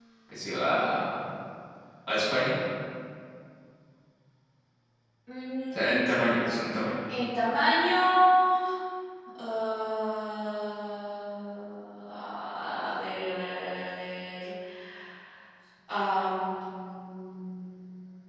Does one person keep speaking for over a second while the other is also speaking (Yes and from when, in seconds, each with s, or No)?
Yes, from 5.7 s